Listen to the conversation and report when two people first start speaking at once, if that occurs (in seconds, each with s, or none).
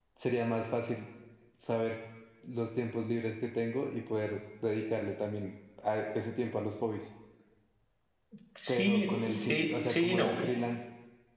8.7 s